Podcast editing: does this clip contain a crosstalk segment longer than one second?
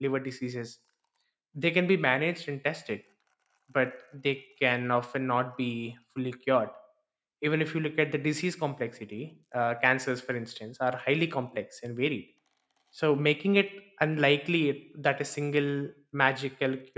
No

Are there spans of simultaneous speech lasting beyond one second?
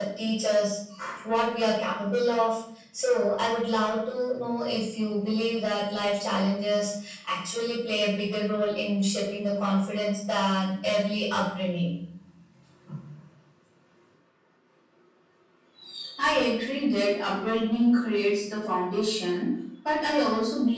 No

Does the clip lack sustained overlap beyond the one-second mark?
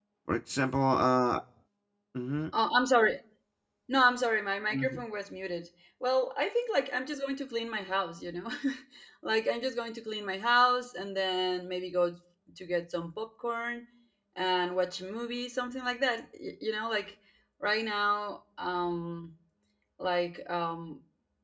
Yes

